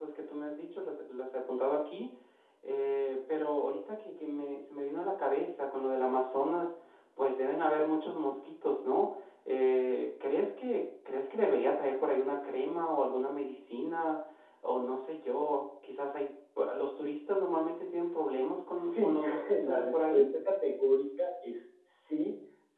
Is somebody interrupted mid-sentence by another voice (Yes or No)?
Yes